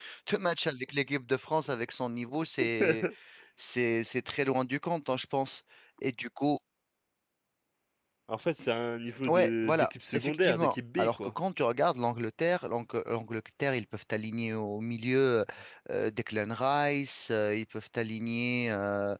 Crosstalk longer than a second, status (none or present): present